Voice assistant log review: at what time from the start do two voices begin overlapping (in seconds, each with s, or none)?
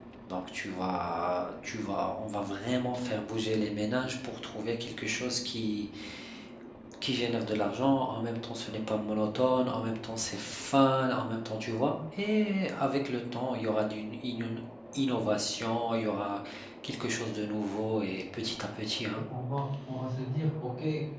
none